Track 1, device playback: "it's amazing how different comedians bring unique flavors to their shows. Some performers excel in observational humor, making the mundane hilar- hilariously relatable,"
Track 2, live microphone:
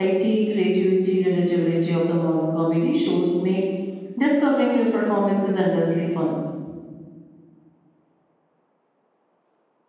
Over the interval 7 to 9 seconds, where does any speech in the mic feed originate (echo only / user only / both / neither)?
neither